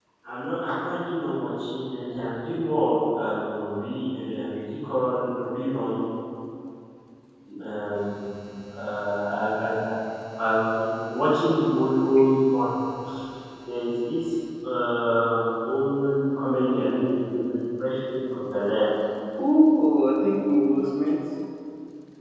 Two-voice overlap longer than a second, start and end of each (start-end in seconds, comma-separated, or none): none